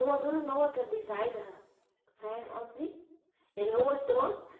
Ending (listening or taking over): listening